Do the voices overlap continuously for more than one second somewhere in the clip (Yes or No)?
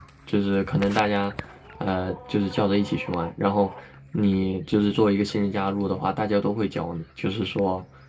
No